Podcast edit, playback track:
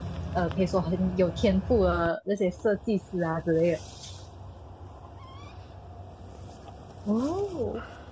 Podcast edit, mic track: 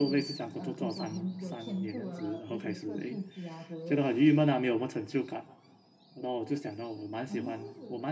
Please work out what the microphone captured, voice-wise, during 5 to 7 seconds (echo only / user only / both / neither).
user only